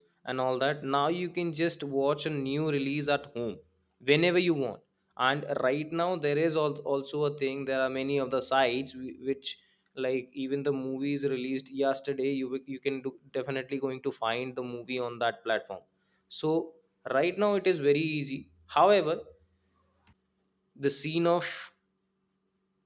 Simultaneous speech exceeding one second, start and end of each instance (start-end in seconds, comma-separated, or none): none